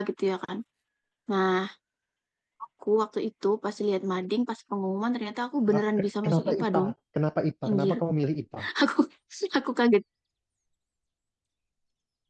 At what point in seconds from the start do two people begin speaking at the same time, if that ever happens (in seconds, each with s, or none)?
5.7 s